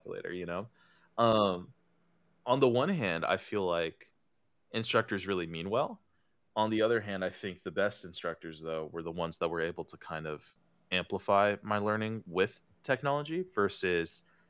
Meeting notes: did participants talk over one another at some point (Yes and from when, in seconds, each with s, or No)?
No